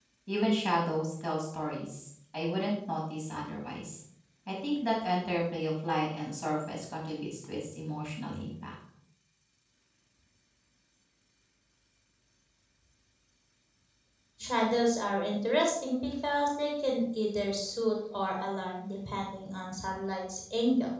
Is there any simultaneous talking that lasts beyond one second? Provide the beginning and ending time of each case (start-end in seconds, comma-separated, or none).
none